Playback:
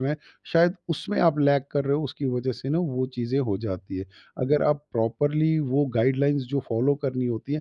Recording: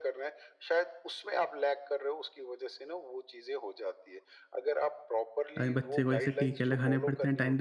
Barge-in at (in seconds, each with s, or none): 5.6 s